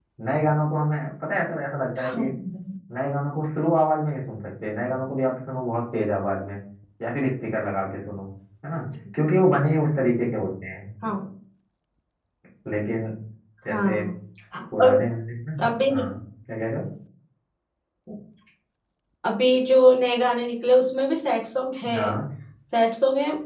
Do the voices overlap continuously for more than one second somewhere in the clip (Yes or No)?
No